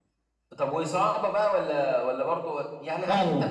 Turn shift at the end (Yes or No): No